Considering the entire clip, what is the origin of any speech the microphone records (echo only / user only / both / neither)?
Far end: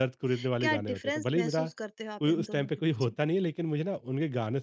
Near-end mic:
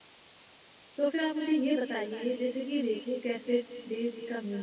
user only